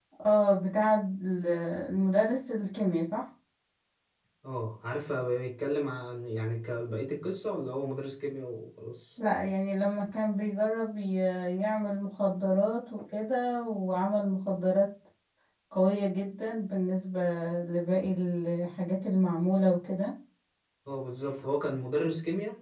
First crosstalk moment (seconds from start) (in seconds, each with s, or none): none